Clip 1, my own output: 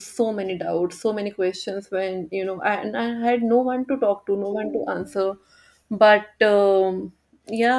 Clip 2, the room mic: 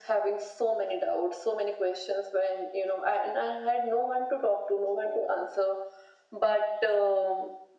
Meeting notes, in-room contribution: none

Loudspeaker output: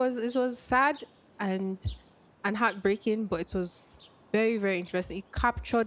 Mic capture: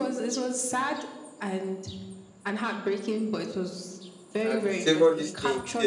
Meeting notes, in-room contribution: present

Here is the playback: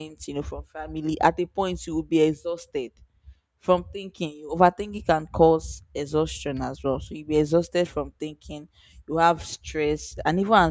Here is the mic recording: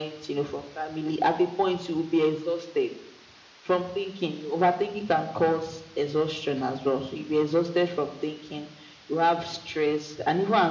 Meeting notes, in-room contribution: none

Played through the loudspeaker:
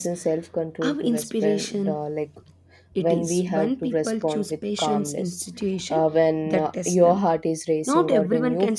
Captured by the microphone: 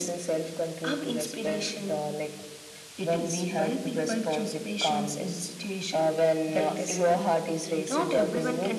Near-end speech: present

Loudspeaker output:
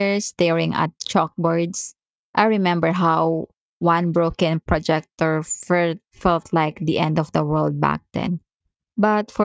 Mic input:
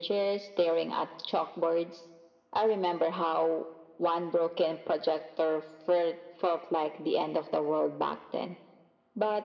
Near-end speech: none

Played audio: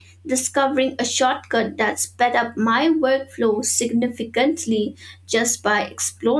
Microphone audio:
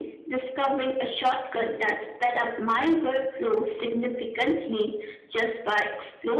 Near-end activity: none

